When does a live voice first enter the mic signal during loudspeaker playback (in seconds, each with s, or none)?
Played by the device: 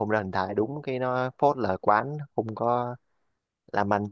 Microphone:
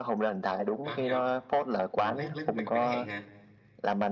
0.8 s